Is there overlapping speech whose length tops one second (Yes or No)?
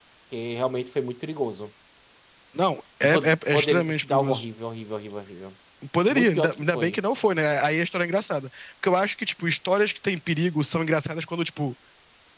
Yes